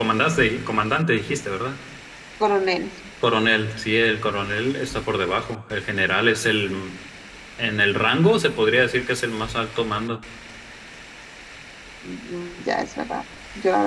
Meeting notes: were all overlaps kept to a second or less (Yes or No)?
Yes